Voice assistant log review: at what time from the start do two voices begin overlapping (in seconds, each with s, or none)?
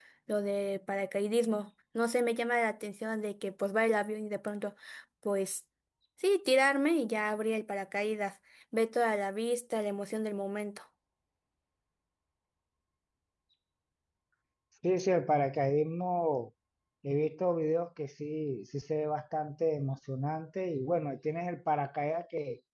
none